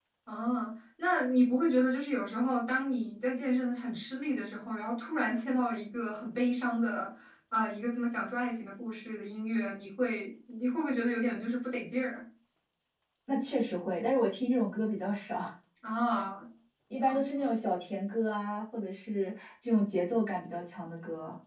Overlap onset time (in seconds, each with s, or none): none